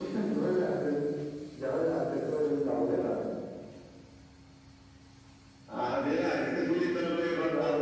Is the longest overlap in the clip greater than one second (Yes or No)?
No